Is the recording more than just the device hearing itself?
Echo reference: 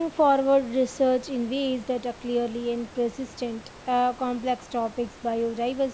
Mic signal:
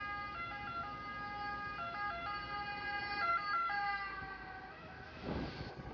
No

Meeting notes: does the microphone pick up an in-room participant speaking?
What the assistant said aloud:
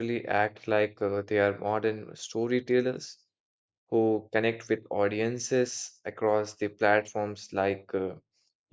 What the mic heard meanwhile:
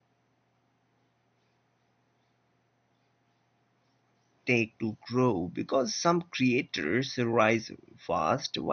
Yes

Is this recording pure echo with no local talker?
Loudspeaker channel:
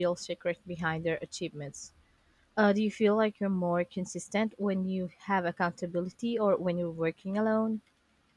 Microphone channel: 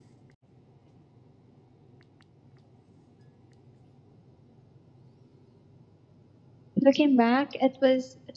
No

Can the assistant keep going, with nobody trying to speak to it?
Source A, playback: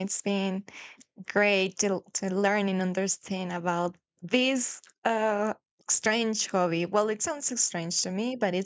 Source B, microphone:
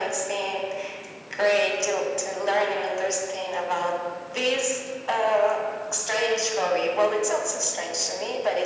Yes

